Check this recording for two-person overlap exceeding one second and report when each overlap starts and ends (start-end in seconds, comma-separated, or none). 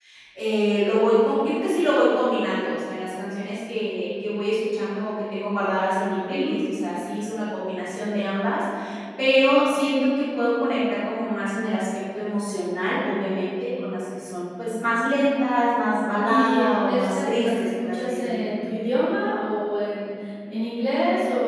16.2-18.5